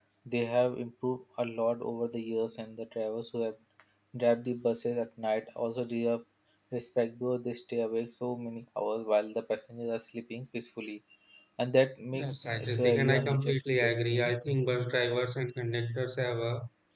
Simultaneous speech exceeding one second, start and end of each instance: 12.1-14.3

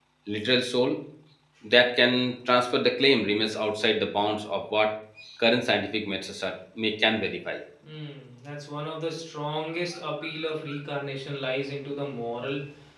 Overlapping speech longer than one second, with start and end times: none

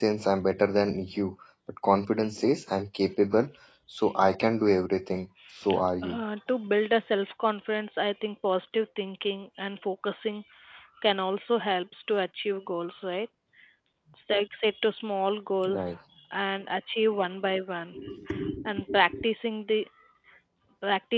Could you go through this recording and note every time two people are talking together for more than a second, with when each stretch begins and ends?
none

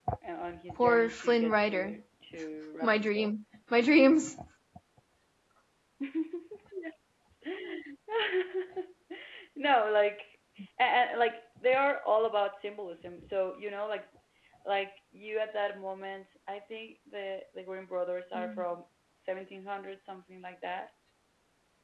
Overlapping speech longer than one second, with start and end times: 0.8-2.0

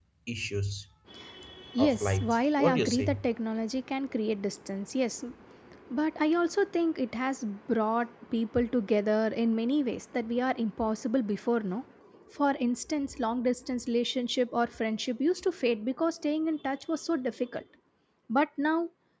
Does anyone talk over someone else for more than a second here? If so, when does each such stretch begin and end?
1.8-3.2

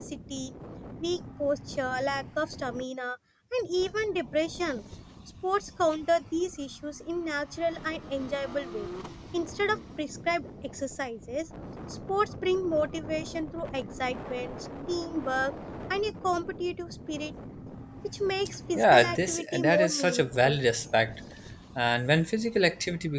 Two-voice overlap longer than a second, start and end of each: 18.8-20.7

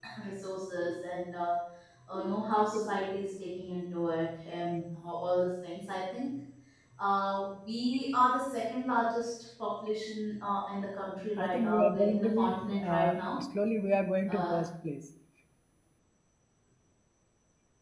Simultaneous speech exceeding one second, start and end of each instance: 11.4-13.4

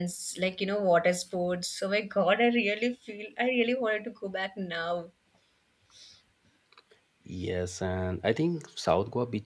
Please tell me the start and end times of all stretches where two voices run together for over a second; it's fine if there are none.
none

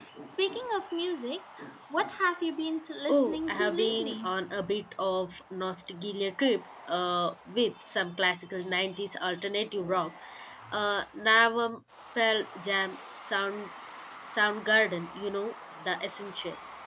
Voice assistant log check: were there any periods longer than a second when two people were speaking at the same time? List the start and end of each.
3.1-4.3

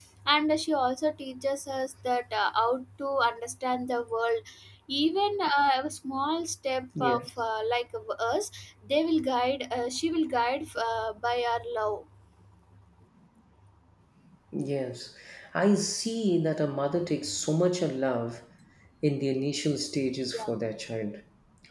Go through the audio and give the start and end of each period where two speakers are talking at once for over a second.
none

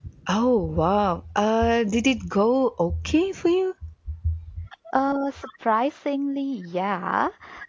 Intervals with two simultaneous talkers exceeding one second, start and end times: none

